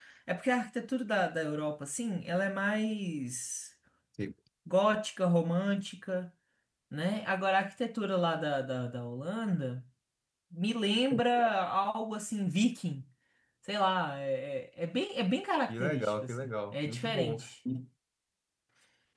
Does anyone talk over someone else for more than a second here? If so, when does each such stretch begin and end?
15.7-17.5

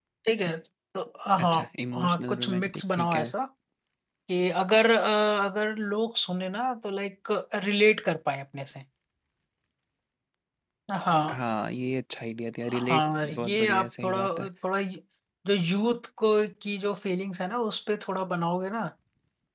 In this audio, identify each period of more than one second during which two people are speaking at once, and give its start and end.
2.0-3.3, 12.7-14.2

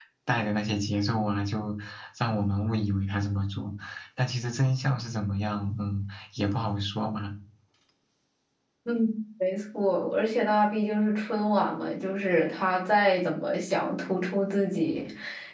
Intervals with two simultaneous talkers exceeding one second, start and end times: none

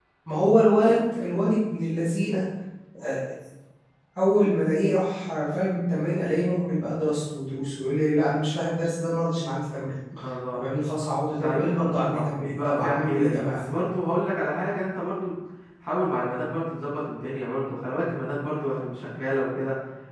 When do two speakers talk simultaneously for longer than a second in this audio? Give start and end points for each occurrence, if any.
11.3-13.6

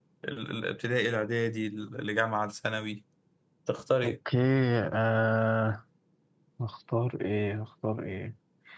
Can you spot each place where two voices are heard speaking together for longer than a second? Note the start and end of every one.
none

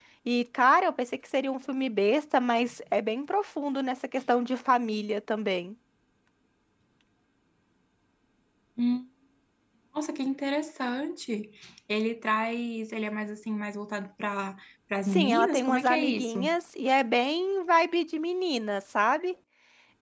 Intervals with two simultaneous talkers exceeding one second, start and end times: 15.1-16.4

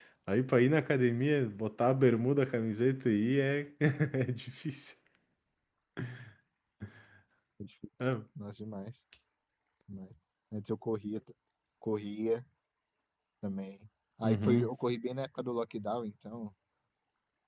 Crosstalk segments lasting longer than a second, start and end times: none

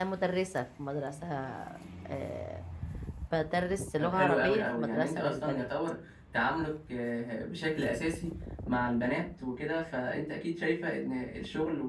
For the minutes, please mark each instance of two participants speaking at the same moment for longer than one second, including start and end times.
4.0-5.7

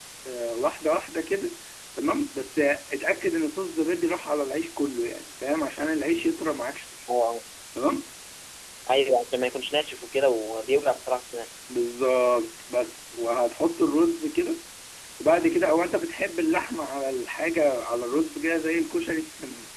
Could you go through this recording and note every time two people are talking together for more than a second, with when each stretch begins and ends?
none

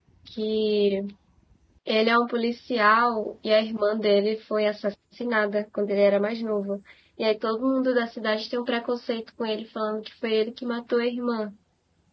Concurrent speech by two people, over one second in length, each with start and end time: none

